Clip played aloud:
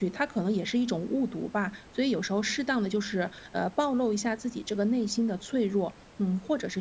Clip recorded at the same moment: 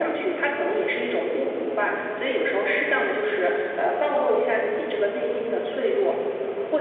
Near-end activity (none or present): none